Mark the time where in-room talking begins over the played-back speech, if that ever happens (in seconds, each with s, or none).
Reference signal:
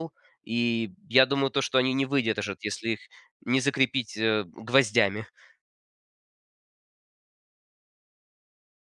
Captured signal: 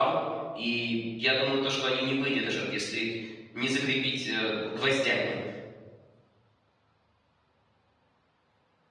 none